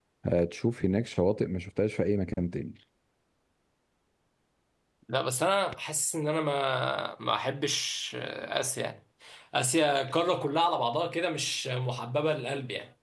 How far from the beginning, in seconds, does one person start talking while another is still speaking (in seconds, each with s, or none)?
none